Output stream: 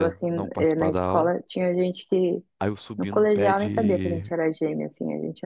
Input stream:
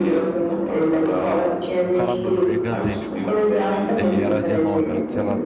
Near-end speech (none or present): present